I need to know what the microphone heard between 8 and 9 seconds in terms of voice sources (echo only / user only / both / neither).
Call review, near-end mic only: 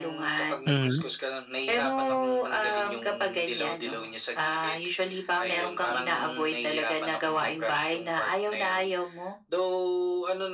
echo only